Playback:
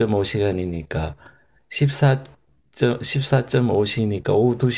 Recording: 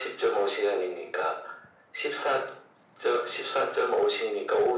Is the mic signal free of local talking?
Yes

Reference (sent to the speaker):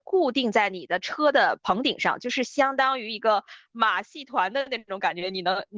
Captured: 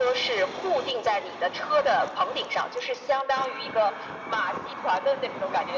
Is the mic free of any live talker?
Yes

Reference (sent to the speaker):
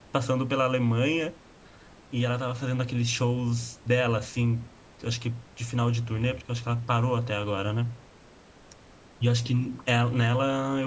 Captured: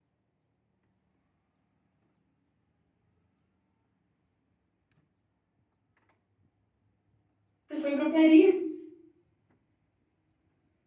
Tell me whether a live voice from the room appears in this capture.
Yes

